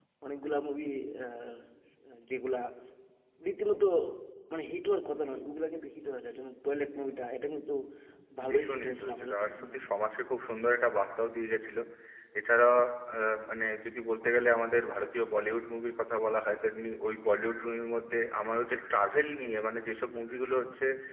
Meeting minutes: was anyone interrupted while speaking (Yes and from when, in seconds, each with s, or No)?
Yes, from 8.5 s